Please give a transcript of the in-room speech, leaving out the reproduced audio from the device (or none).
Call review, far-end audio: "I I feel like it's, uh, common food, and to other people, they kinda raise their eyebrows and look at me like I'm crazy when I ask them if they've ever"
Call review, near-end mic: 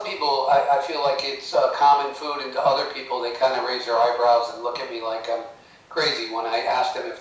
none